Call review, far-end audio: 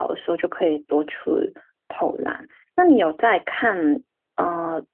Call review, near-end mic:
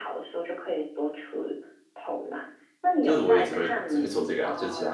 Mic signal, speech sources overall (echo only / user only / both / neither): both